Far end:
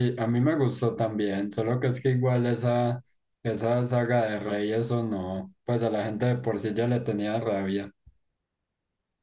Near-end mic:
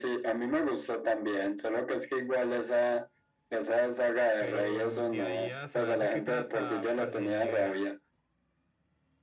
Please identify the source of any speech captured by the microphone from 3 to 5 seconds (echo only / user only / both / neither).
both